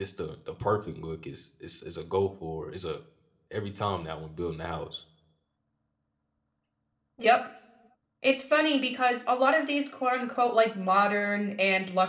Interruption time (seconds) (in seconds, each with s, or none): none